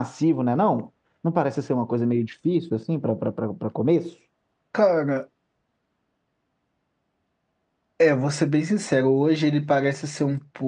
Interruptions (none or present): none